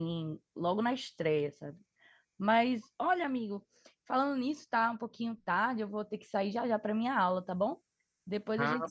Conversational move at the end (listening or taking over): taking over